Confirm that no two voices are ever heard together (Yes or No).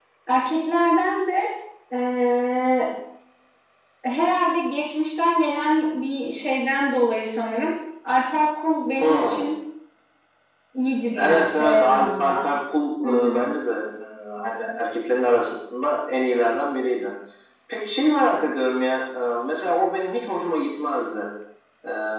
No